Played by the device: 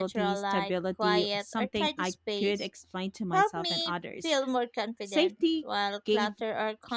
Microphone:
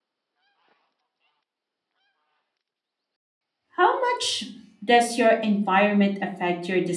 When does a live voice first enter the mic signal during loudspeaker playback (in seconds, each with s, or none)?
3.8 s